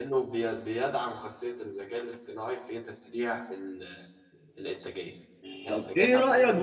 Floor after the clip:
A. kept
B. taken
B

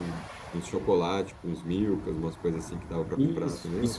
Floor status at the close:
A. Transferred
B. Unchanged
A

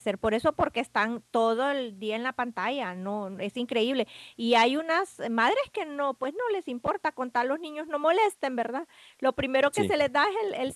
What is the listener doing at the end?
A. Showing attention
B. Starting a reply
A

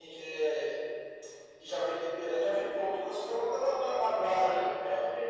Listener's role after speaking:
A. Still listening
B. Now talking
B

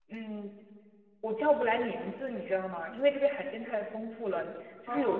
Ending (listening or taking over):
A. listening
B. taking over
A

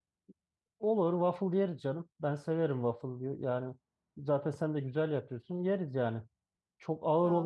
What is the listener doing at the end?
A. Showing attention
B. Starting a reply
A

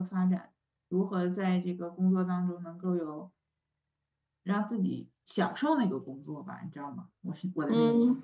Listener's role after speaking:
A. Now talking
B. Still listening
A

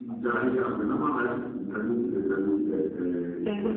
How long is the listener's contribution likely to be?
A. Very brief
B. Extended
B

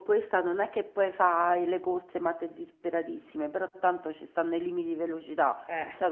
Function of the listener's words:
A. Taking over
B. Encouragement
B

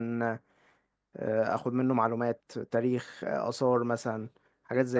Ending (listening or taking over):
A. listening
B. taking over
B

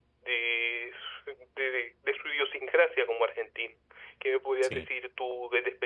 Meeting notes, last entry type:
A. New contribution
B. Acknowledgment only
B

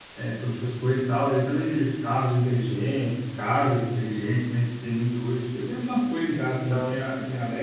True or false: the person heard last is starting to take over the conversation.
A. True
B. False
B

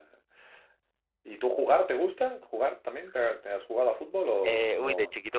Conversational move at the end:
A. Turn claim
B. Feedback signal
A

